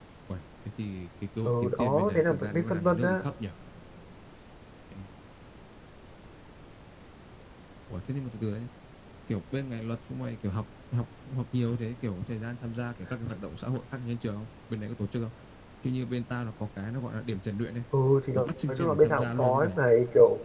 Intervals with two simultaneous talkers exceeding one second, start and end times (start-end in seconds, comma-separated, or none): 1.4-3.2, 18.3-19.8